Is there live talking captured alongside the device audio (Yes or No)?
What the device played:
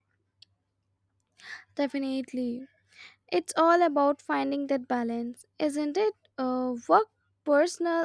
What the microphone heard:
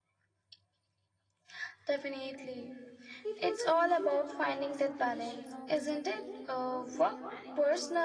Yes